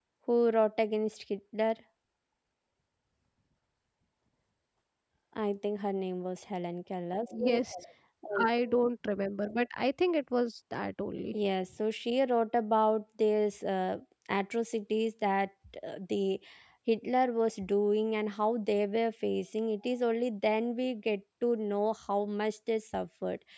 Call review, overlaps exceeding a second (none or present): none